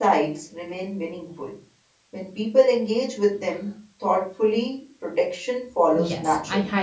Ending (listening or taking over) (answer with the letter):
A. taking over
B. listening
A